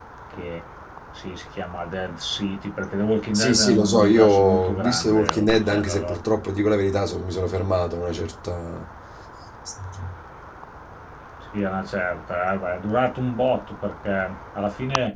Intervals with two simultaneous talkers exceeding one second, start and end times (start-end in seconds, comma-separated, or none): 3.3-6.2